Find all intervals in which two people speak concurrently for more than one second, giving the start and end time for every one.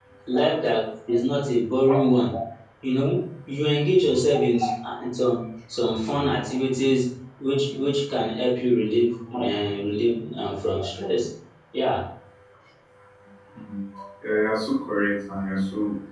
none

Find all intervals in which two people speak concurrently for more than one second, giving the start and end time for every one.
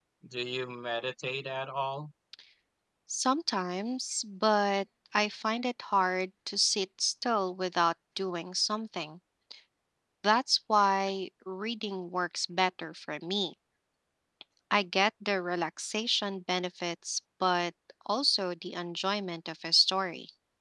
none

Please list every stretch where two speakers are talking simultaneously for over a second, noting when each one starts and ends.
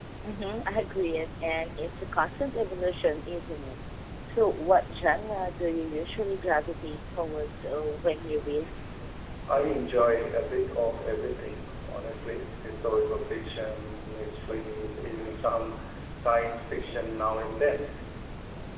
none

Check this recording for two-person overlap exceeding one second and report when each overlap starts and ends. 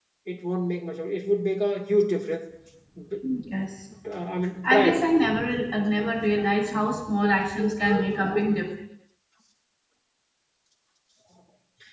none

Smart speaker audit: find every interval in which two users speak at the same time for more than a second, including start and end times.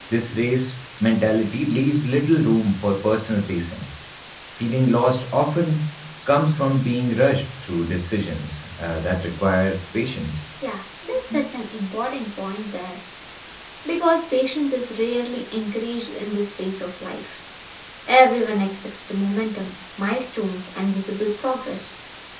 none

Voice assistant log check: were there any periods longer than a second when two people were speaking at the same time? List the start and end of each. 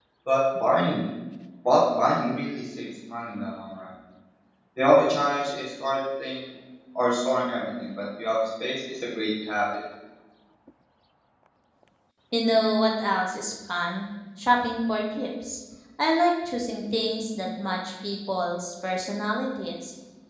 none

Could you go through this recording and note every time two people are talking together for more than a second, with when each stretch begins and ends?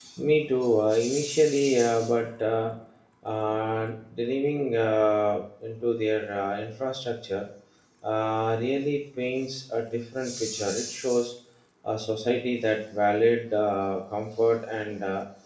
none

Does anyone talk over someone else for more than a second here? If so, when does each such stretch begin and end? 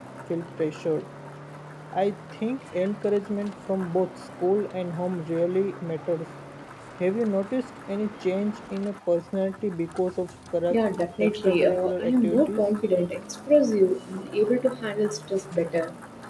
10.7-12.6

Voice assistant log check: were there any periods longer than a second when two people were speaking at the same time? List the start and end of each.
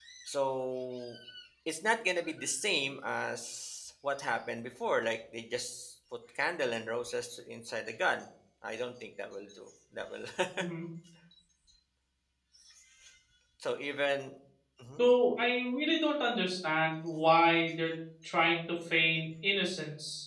none

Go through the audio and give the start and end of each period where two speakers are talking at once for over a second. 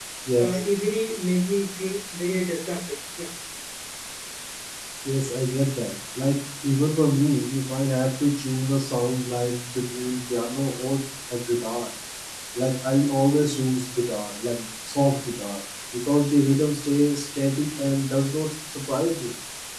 none

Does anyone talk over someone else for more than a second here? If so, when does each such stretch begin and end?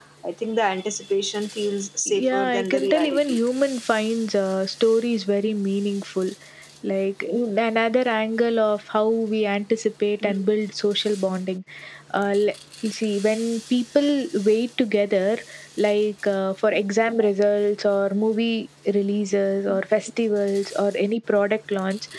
2.1-3.4

